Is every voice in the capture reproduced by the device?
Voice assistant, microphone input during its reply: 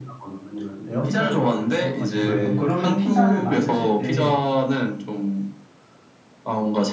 No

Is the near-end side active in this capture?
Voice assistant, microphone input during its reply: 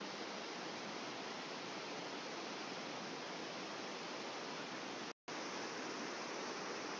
No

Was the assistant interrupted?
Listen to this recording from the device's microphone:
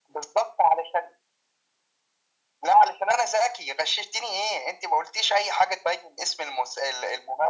No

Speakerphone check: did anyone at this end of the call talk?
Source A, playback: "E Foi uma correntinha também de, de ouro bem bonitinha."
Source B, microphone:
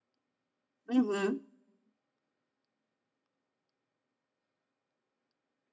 Yes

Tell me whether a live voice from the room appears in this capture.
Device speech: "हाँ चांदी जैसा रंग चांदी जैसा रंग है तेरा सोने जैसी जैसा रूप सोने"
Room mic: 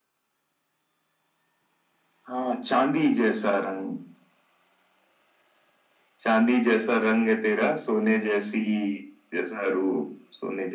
No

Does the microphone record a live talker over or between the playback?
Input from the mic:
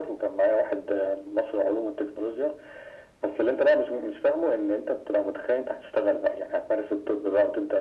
No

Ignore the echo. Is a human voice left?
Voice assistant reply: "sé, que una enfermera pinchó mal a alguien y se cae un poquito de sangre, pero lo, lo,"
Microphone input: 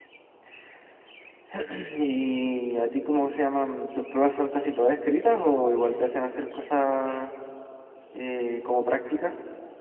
Yes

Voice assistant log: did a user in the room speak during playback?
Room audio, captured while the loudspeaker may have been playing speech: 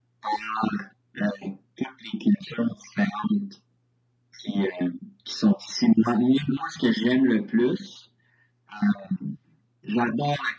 No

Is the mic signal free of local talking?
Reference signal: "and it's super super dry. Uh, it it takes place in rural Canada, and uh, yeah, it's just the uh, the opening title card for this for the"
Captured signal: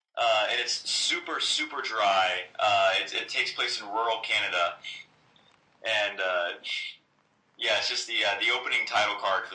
Yes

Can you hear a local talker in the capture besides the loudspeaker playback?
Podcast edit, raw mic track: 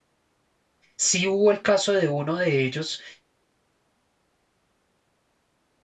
Yes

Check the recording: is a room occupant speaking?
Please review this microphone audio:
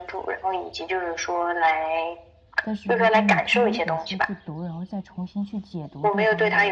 Yes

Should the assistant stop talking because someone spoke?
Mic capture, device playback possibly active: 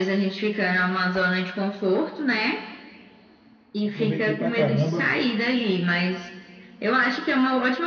Yes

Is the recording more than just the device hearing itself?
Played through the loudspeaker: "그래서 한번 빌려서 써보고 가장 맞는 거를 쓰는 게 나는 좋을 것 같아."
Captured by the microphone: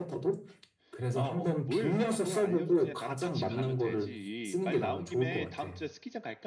Yes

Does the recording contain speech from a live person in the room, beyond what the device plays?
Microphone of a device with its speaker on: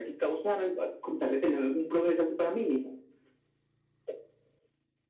No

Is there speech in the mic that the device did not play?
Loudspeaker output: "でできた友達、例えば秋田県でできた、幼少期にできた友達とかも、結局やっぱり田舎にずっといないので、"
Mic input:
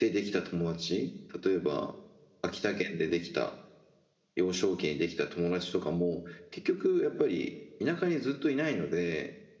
No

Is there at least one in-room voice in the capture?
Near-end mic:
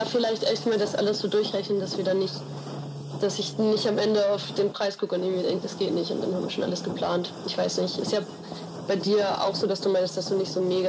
No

